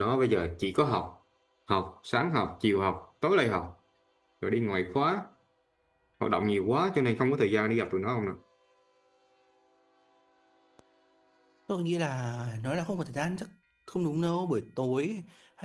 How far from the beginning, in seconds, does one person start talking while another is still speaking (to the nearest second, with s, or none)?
none